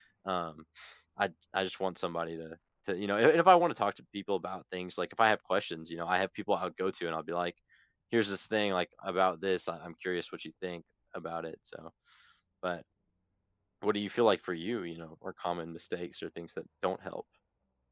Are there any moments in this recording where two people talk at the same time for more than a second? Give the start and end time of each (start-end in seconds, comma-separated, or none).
none